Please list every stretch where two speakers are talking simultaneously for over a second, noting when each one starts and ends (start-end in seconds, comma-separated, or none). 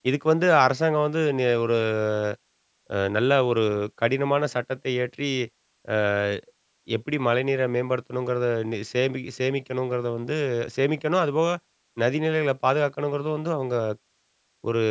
none